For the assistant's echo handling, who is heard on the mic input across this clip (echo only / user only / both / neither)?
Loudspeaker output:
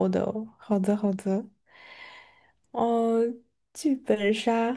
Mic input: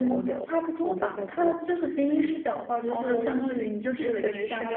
both